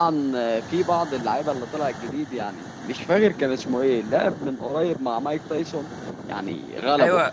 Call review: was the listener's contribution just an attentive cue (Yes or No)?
No